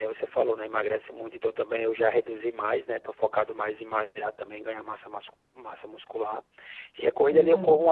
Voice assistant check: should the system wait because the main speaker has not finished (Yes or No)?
Yes